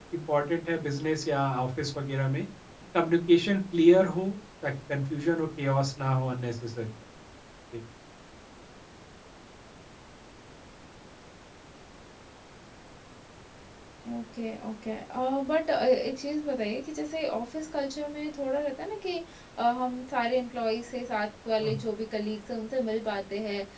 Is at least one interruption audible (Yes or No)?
No